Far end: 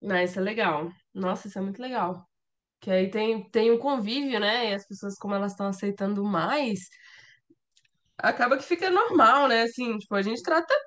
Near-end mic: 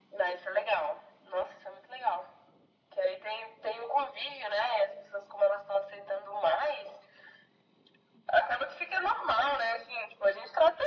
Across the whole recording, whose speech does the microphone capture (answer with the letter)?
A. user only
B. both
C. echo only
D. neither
C